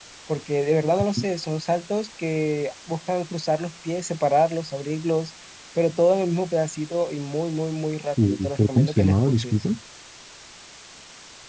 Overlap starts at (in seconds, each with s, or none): 8.2 s